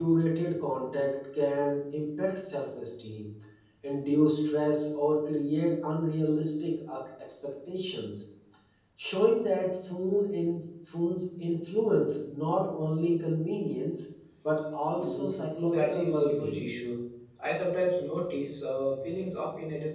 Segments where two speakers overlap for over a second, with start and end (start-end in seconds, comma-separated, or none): 14.9-16.7